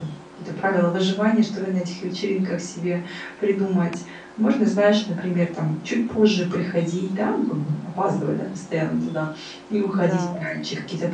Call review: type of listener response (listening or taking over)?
listening